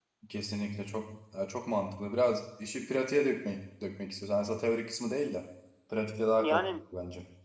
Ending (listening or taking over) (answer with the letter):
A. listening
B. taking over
B